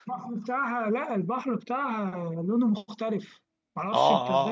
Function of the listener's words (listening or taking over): taking over